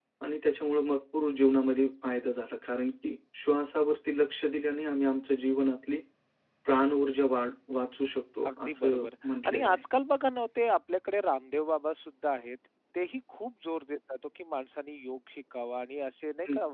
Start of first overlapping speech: 8 s

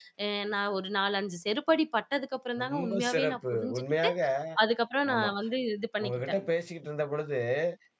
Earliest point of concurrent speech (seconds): 3 s

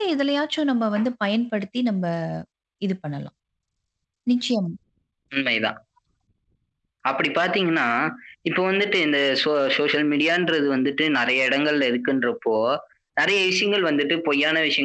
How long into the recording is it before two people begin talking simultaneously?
none

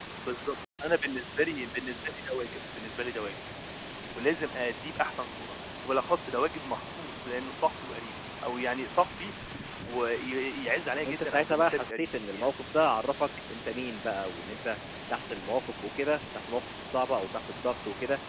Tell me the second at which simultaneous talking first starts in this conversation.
11 s

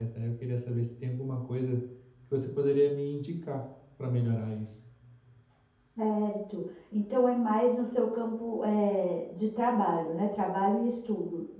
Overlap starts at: none

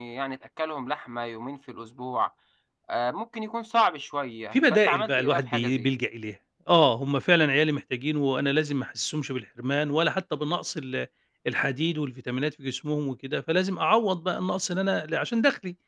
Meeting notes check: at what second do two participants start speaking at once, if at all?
5 s

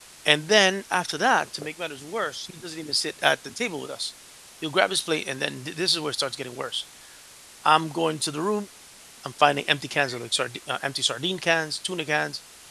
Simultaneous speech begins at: none

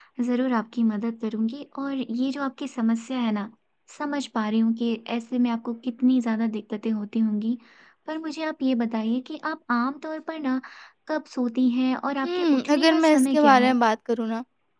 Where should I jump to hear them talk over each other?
12 s

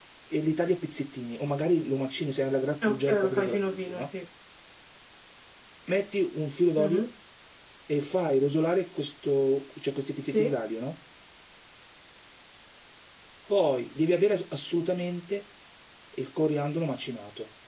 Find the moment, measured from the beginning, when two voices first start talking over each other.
3 s

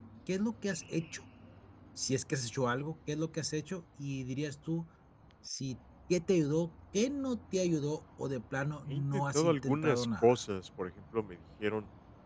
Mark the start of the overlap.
9 s

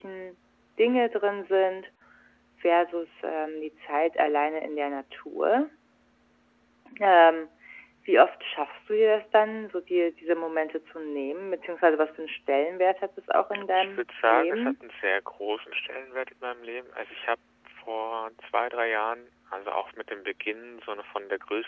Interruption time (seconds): 14 s

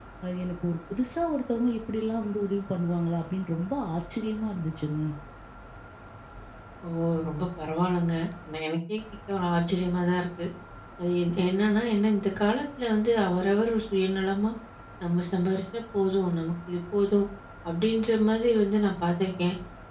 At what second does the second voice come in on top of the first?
none

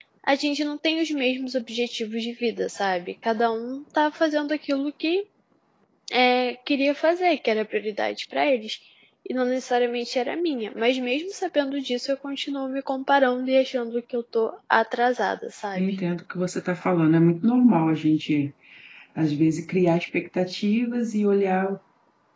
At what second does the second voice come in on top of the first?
none

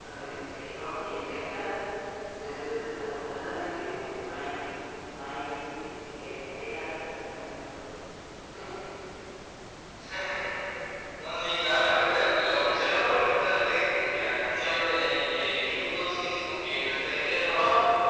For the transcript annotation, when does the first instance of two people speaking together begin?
none

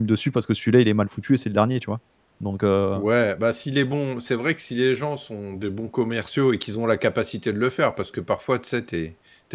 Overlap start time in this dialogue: none

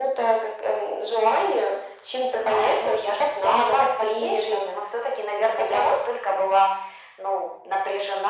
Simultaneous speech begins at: 2 s

